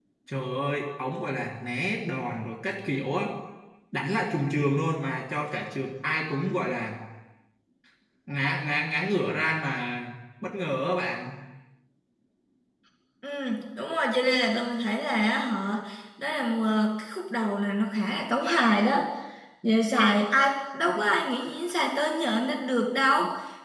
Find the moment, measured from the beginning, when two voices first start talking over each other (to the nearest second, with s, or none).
none